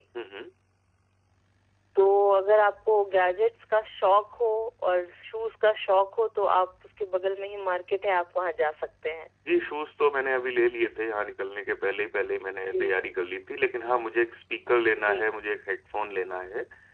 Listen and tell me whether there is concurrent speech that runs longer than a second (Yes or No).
No